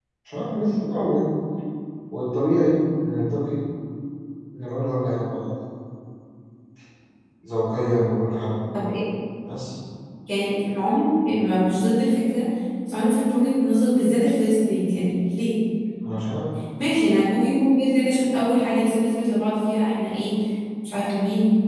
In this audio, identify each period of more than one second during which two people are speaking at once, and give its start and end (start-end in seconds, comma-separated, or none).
none